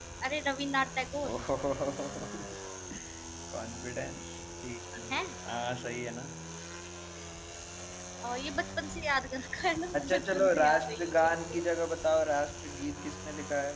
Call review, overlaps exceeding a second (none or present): present